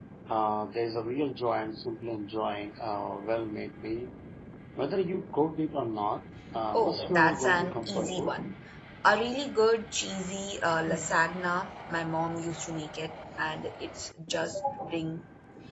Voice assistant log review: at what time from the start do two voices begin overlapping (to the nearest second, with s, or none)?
7 s